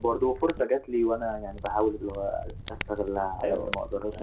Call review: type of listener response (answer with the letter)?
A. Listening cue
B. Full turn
B